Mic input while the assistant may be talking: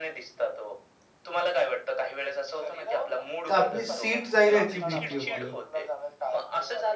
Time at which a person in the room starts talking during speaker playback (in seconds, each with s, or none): 3.5 s